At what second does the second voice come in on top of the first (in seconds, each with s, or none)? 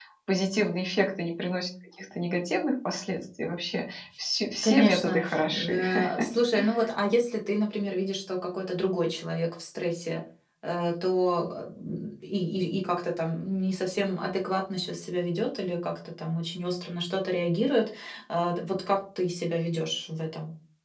4.6 s